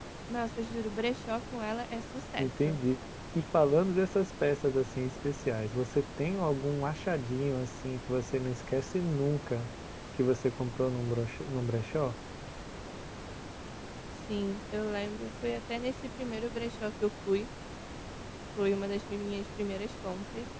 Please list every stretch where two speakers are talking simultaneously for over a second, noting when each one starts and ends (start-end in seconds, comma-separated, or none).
none